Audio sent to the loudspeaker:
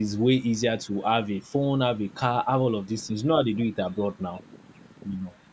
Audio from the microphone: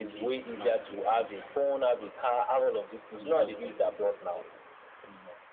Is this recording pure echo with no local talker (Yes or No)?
No